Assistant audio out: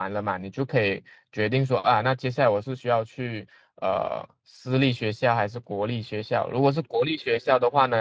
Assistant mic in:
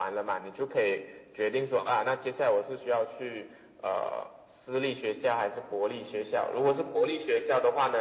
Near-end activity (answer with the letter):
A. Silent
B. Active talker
A